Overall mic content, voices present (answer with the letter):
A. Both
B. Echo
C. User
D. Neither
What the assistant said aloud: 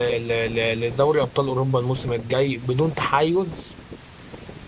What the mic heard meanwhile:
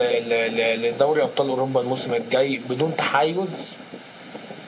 B